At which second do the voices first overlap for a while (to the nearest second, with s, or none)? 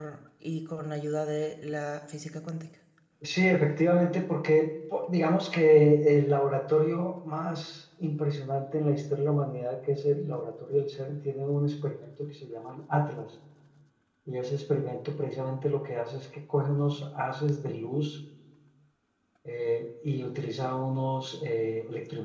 none